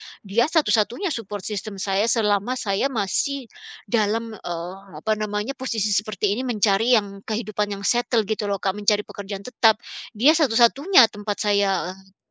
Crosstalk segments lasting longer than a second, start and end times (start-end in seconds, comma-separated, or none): none